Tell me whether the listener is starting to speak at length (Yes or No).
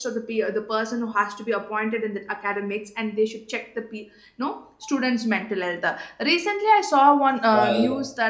No